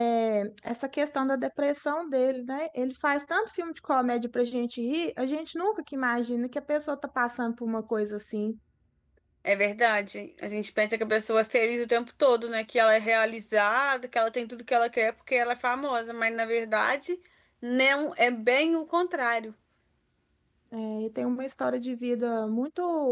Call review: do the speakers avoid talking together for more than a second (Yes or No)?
Yes